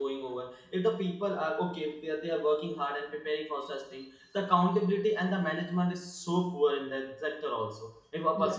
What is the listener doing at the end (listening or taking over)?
listening